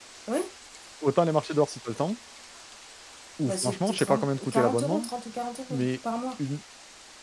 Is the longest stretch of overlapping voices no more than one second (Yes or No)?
No